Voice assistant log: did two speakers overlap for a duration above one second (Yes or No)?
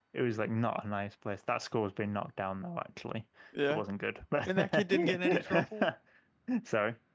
Yes